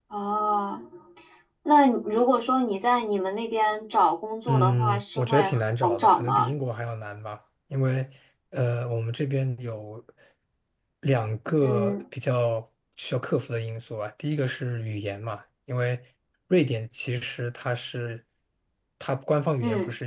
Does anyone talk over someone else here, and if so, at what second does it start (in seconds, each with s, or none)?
4.5 s